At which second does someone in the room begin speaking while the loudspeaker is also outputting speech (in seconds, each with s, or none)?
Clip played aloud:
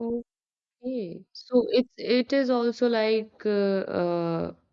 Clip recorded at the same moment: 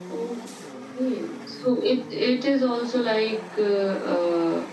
none